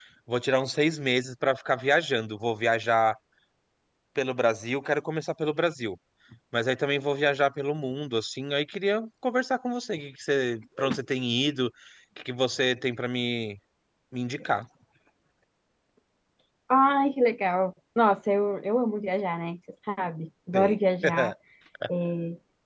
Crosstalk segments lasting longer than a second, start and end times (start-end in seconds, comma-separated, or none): none